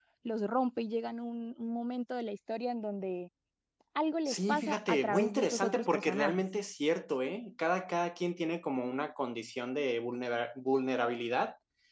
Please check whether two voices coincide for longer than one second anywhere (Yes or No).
Yes